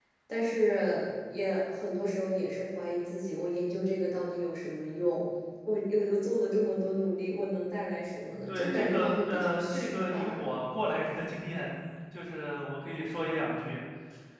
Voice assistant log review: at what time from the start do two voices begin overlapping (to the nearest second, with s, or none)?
8 s